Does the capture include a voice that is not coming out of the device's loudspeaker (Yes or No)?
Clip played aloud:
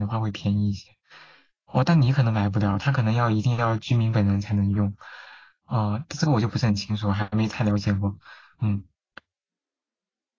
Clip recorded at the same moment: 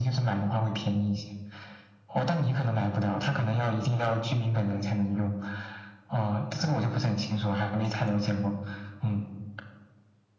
No